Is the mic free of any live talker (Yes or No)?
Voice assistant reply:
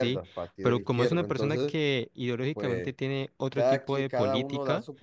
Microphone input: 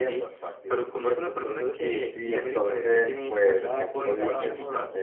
No